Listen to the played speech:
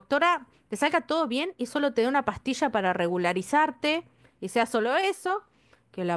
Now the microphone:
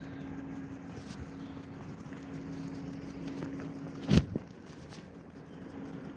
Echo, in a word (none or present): none